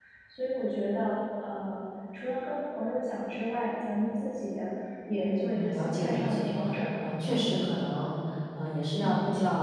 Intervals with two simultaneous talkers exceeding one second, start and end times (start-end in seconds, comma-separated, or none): 5.2-6.5